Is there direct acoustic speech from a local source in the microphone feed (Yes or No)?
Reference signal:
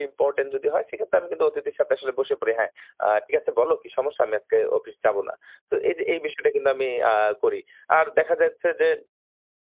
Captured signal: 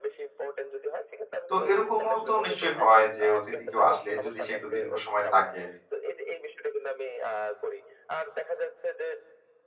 Yes